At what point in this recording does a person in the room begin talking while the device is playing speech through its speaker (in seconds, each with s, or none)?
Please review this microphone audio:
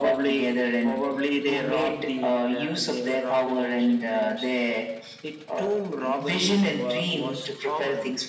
none